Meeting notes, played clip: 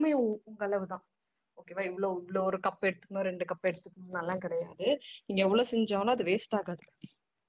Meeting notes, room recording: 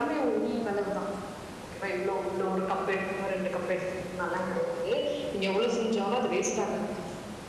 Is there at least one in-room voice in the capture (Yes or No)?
Yes